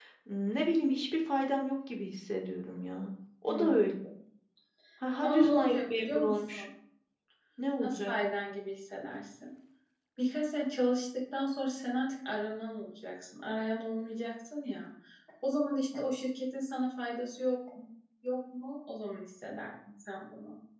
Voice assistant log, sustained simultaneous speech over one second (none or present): present